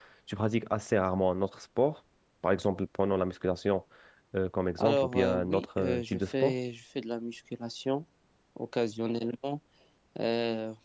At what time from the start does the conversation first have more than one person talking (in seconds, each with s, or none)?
4.8 s